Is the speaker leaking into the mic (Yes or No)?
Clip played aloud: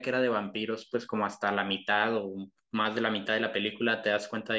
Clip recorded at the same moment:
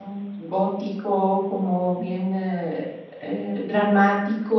No